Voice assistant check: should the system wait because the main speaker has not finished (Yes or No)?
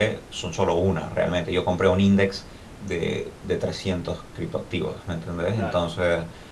Yes